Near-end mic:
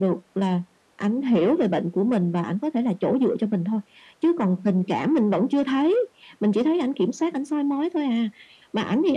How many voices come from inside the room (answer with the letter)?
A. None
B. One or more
A